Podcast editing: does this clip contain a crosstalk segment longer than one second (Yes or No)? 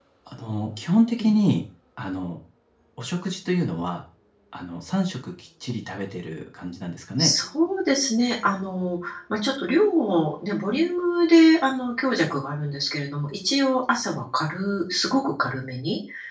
No